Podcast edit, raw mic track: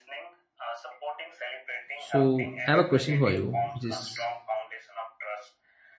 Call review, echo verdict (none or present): present